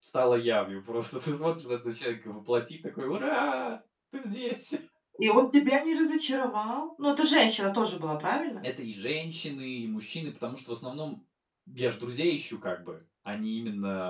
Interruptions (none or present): none